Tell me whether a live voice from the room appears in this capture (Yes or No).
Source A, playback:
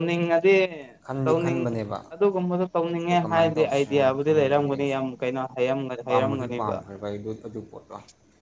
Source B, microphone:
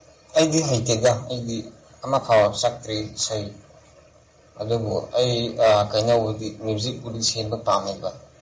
Yes